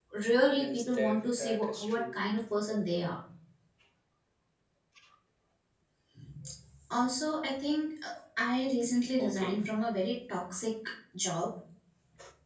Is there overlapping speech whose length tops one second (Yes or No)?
Yes